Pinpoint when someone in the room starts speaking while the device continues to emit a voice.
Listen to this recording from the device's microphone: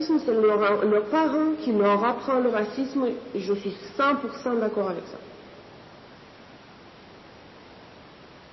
none

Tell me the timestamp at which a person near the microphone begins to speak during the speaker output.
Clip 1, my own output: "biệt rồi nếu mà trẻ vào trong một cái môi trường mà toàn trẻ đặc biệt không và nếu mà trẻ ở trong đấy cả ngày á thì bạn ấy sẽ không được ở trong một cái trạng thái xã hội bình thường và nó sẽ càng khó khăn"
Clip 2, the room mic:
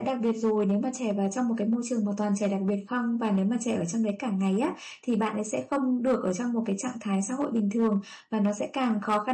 none

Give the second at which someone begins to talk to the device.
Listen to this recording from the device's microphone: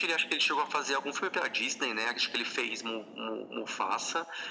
none

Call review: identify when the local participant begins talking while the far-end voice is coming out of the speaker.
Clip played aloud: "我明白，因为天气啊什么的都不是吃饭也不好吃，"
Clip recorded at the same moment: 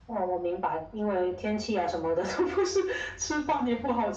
none

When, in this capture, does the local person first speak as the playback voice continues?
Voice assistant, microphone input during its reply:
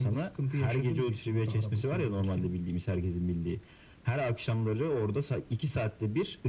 none

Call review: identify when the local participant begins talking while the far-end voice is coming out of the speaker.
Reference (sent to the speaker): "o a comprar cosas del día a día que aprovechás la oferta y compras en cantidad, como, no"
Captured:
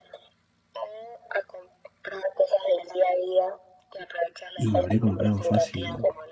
5 s

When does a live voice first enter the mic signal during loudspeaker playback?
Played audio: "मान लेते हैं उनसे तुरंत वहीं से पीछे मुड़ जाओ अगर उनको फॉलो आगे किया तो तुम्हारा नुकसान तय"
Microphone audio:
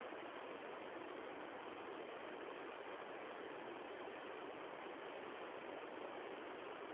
none

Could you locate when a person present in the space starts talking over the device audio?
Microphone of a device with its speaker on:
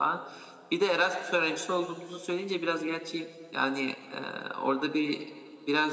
none

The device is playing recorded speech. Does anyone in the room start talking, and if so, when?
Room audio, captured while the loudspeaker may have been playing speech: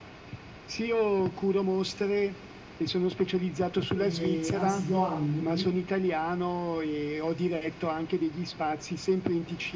4 s

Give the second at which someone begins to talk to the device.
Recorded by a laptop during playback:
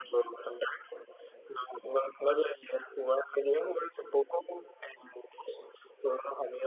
none

